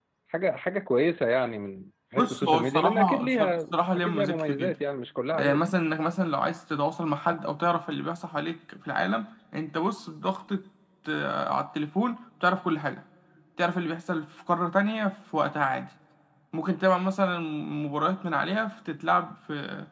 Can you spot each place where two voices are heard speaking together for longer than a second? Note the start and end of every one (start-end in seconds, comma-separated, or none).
2.2-4.7